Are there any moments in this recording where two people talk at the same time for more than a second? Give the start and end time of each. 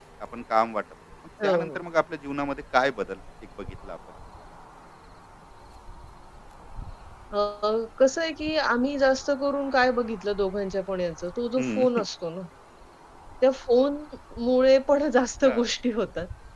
none

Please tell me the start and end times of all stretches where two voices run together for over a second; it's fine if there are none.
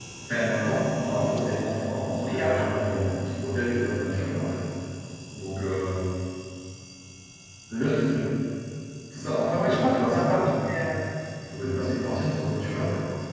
9.6-10.8

